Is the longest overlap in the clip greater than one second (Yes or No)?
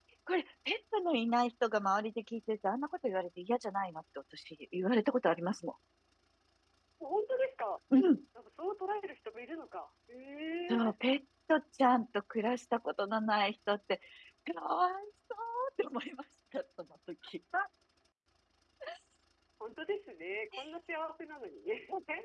No